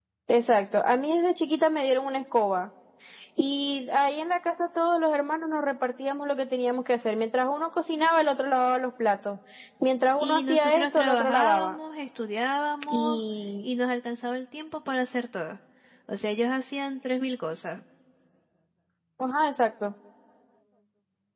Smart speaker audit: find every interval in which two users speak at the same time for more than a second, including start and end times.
10.2-11.8

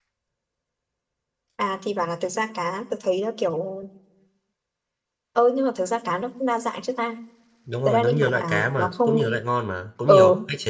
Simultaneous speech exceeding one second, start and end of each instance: 7.8-9.3

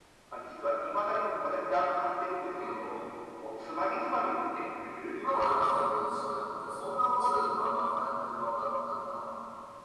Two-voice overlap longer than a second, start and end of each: none

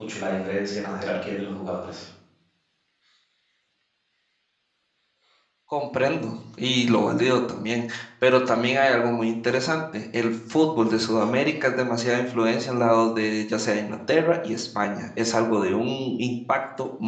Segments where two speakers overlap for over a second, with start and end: none

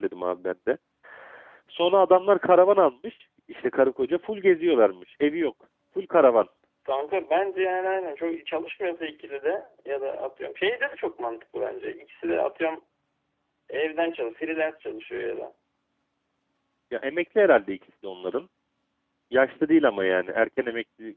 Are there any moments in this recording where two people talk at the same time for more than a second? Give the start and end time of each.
none

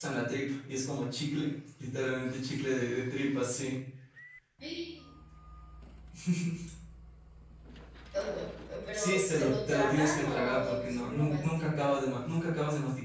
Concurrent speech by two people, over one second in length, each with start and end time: 8.9-12.0

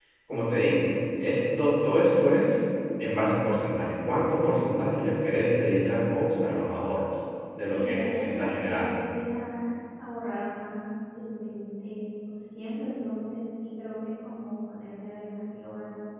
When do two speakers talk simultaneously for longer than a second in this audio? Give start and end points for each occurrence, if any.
7.7-9.0

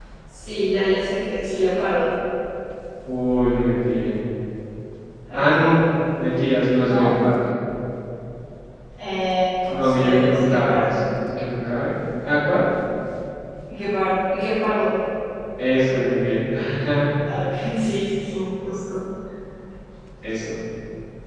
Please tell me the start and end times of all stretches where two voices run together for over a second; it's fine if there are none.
9.7-11.0

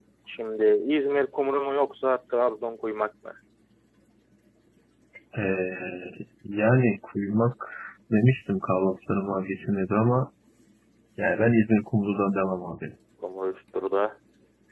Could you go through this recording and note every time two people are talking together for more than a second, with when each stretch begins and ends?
none

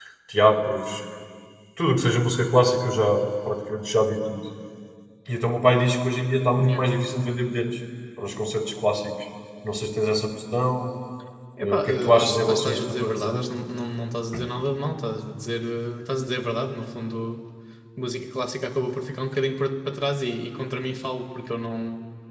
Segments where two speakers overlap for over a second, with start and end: 11.6-13.5

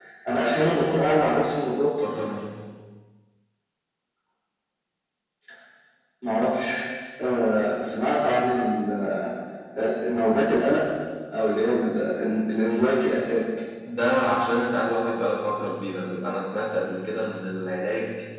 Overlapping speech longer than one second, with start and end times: none

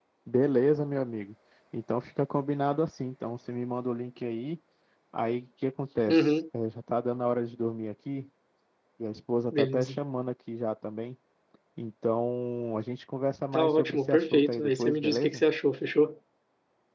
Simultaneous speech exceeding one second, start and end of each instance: 13.5-15.4

